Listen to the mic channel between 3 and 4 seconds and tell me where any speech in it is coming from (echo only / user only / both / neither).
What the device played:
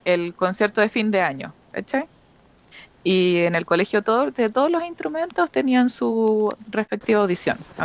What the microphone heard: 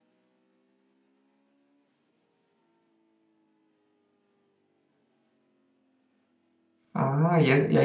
neither